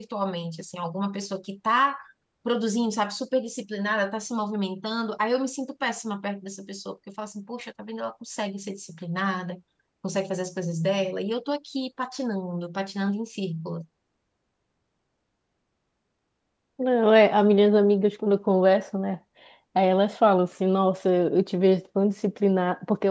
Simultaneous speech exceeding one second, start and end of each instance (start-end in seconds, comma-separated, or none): none